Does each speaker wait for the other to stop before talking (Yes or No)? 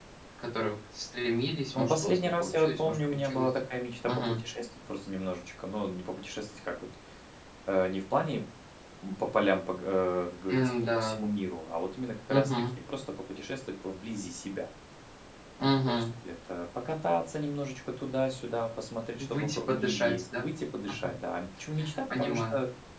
No